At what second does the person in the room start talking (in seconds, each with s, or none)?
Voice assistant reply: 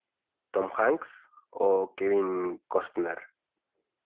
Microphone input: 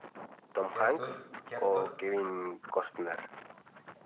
0.7 s